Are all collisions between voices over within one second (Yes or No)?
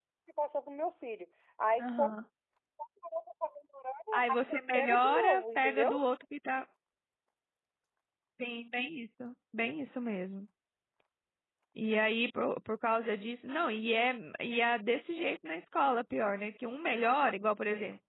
No